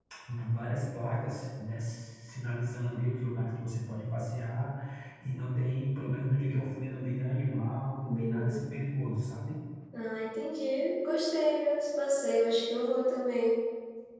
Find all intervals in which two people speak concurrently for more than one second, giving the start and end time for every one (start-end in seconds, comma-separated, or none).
none